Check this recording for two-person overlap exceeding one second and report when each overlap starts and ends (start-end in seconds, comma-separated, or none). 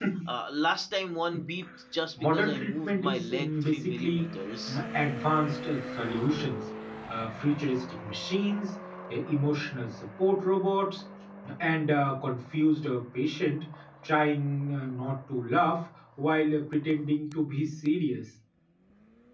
2.2-4.3